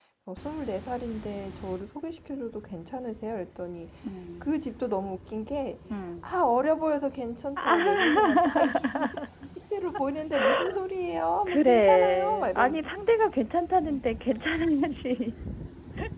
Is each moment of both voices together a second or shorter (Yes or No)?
No